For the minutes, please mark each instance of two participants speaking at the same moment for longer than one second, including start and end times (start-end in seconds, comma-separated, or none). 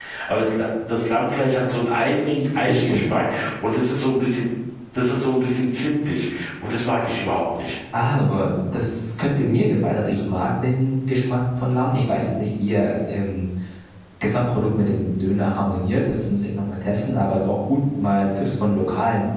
none